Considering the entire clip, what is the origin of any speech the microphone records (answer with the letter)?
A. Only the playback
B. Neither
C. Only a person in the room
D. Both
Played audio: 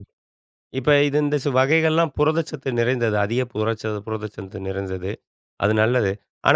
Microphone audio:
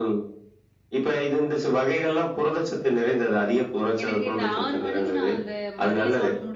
D